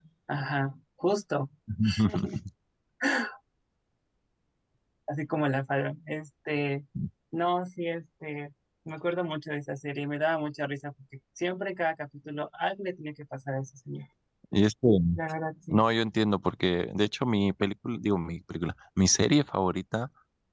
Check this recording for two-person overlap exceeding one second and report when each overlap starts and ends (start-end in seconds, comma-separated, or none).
none